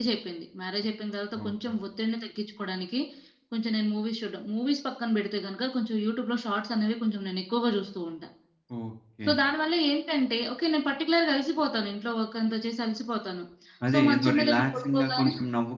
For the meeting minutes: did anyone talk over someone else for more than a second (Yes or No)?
Yes